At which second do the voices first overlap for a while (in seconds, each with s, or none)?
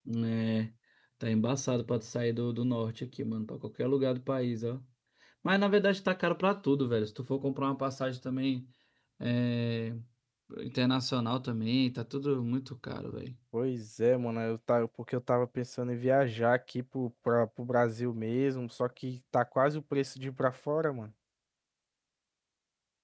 none